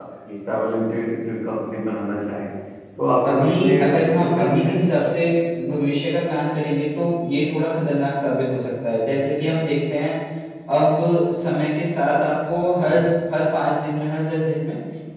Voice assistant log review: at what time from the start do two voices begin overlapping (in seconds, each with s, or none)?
3.3 s